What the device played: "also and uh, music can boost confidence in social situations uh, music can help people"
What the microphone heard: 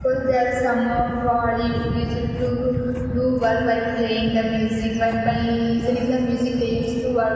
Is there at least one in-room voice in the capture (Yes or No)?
Yes